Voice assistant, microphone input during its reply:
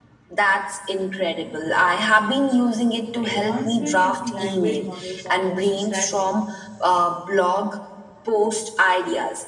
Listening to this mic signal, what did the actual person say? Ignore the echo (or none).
The advancement in language models are also staggering.